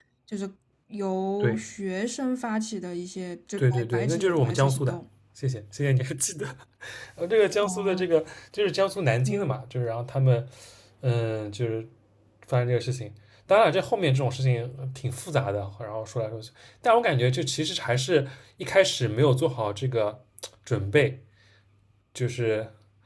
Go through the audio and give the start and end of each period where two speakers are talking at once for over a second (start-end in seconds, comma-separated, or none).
3.6-5.0